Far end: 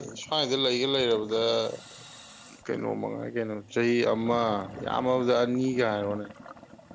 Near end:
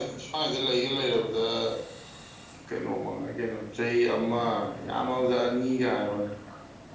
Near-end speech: none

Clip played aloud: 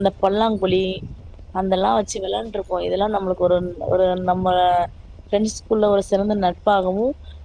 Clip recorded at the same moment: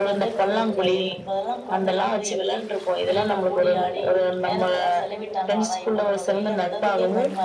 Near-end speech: present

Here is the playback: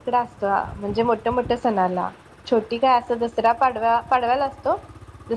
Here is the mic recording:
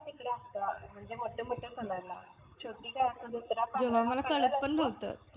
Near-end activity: present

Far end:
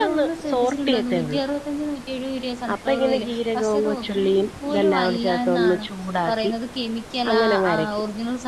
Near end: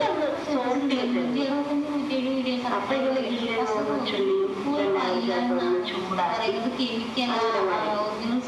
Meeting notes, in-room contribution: none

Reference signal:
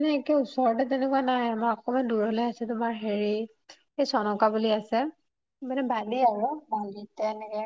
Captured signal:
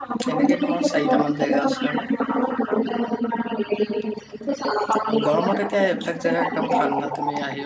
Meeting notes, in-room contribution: present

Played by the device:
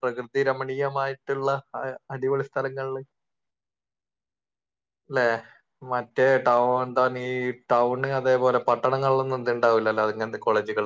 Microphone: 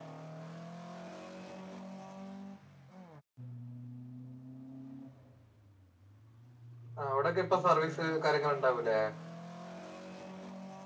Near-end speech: present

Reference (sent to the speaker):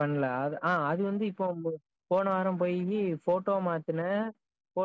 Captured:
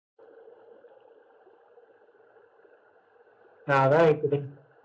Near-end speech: present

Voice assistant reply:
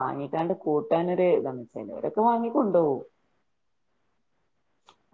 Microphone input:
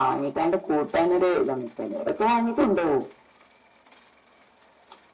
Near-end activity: none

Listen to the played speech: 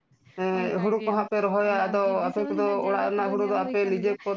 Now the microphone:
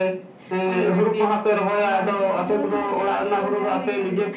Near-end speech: none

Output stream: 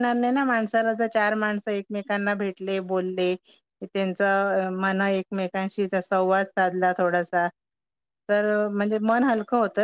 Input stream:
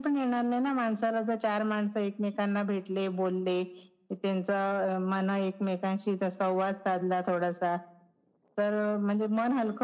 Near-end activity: none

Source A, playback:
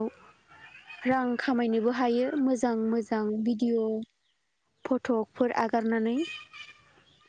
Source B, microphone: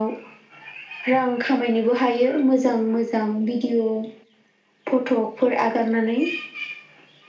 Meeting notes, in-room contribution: none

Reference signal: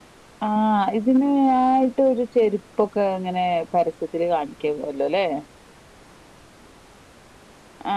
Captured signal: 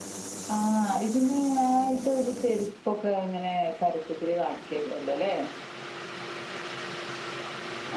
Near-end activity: none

